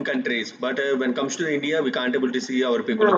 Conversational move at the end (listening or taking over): listening